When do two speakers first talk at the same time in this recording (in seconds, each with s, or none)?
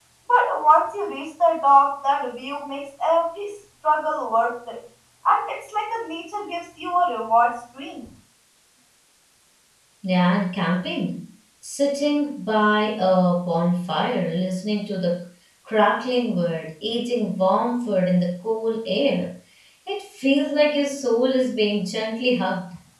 none